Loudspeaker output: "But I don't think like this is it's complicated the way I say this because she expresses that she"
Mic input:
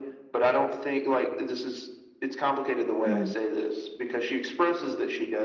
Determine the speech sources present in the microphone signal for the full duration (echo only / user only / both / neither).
both